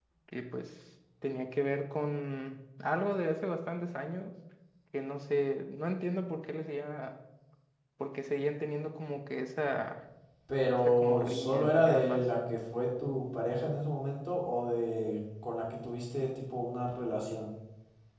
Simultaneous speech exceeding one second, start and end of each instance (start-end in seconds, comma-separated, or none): 10.8-12.2